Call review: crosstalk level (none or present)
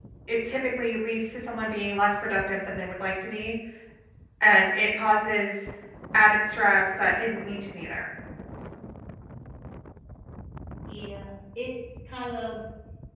none